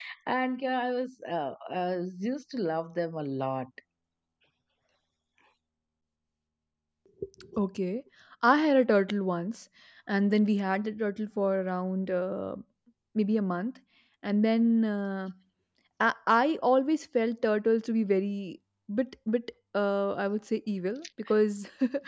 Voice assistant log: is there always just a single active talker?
Yes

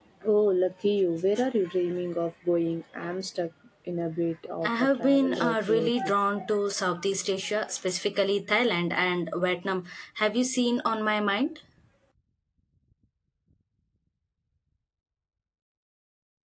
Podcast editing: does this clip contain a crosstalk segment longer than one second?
Yes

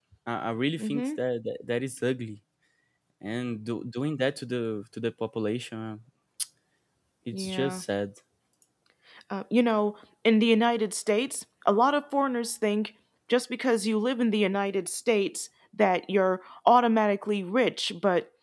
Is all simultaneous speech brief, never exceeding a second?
Yes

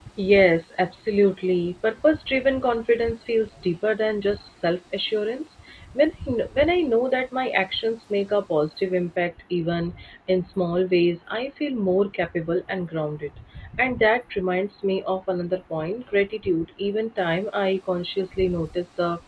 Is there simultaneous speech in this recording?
No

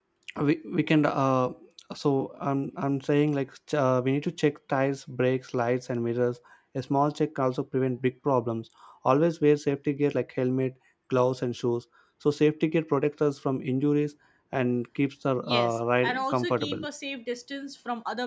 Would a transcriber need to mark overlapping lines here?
Yes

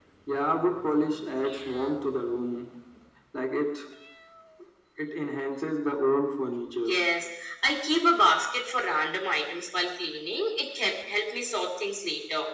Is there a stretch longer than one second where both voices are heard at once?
No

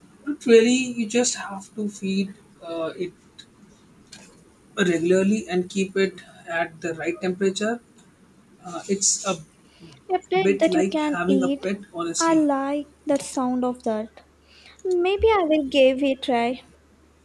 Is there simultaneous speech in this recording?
Yes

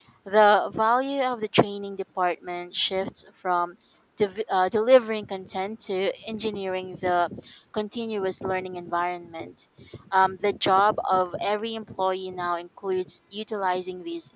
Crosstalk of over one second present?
No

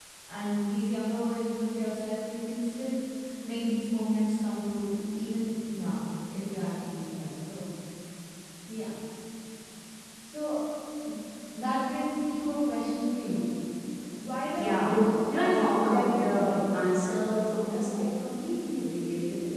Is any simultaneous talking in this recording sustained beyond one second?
Yes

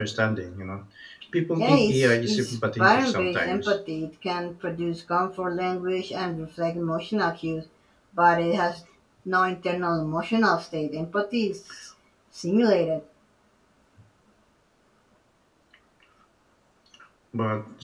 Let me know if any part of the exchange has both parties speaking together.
Yes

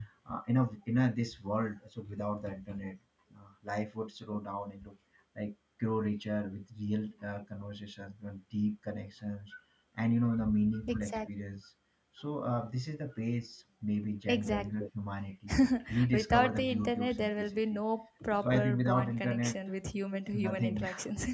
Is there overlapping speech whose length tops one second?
Yes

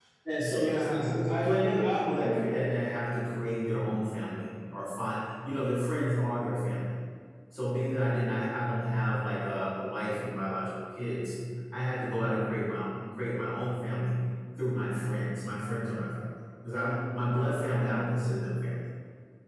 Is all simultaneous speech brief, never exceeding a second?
No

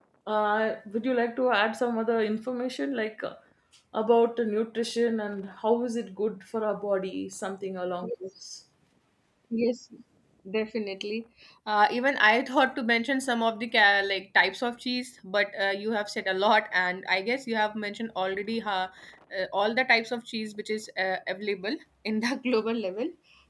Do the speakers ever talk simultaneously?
No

